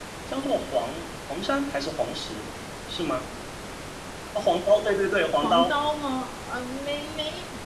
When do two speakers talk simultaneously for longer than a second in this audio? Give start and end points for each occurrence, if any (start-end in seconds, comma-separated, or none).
none